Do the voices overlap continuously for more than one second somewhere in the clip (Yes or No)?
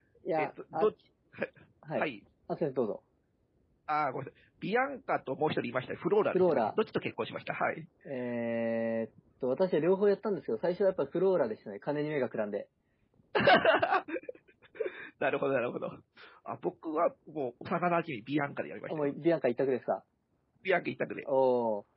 No